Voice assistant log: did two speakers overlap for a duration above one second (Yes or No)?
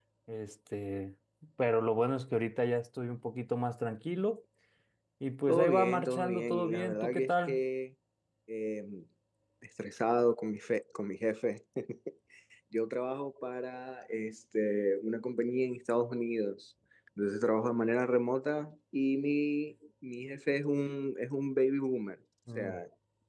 Yes